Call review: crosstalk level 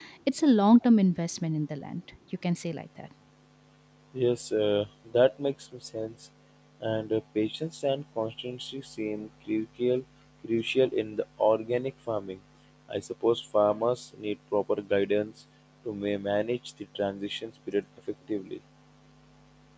none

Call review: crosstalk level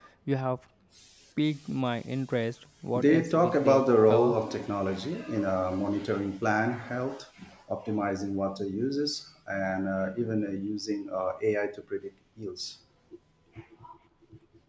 present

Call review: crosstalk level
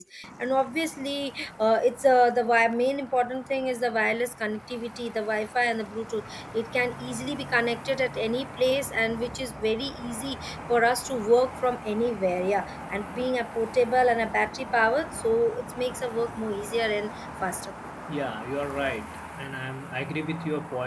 none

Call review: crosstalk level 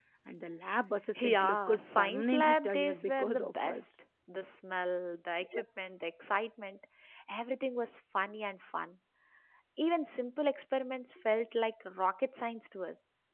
present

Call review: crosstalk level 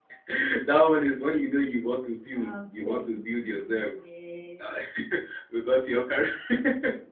present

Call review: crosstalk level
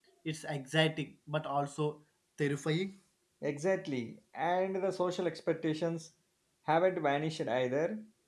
none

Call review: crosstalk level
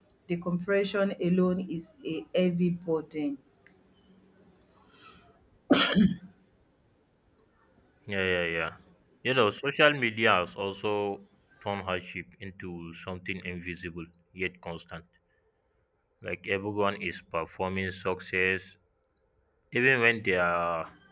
none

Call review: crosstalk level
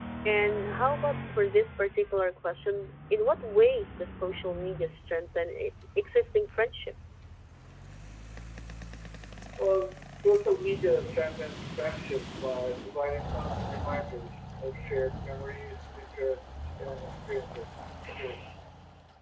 none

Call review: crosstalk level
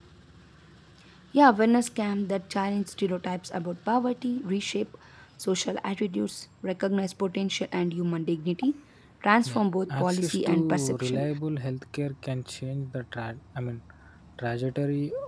present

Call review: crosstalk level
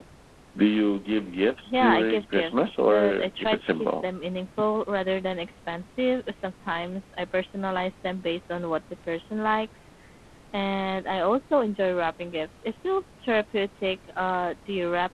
present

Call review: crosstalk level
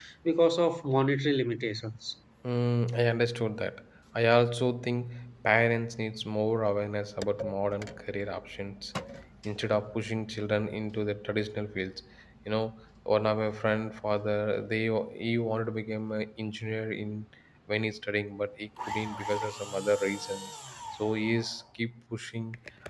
none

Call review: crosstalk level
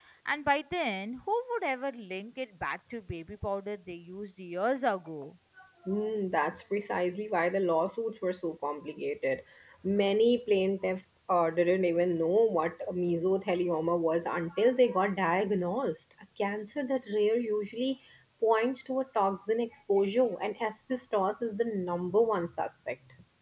none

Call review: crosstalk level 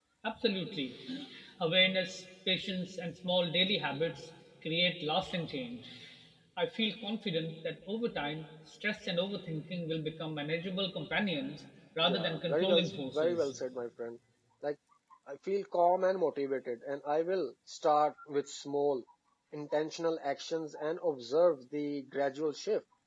present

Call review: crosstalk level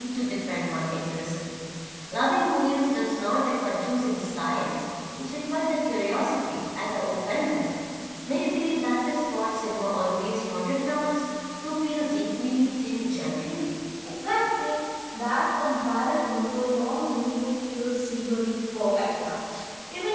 none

